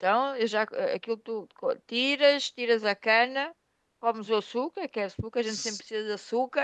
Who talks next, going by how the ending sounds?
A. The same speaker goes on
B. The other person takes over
A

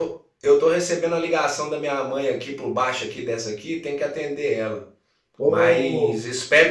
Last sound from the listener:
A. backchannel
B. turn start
A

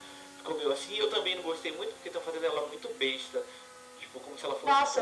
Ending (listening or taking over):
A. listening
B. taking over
B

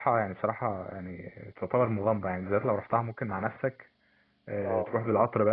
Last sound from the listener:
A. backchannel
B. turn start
A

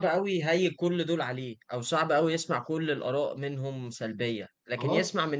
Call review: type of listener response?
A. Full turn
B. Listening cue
B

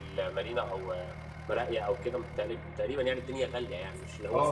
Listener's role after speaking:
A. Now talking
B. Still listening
A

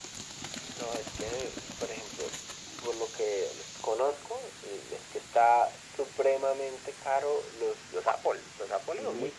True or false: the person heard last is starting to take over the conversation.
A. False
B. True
A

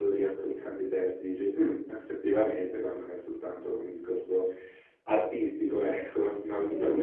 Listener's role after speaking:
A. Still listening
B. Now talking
B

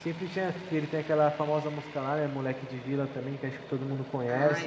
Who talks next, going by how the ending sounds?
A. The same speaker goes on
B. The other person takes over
B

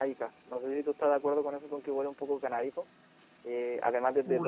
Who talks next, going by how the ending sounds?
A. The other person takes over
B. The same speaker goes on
A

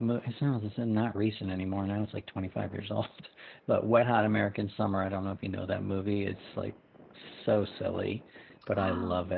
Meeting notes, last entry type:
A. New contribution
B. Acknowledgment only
B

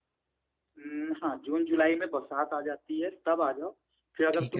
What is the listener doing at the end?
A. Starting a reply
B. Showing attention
B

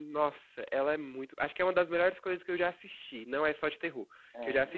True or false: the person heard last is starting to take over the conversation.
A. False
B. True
A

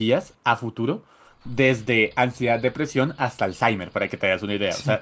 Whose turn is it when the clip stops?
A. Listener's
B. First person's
A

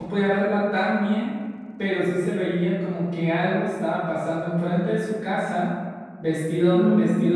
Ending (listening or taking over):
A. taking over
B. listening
B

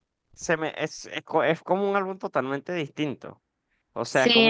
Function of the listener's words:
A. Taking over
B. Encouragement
B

